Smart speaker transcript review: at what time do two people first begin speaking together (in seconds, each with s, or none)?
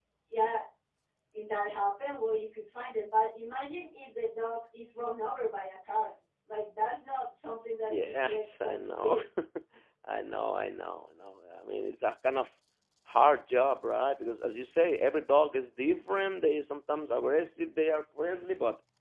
7.9 s